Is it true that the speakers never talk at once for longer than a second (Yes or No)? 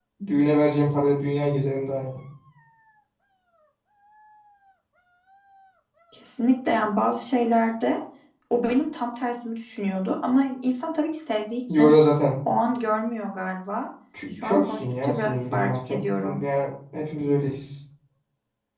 No